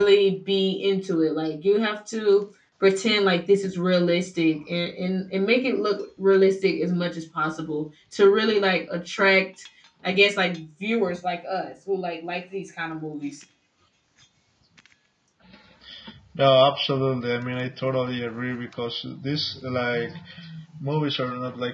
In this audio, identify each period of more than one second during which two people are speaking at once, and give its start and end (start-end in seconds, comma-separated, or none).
none